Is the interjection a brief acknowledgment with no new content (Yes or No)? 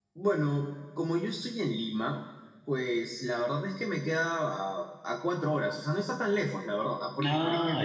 Yes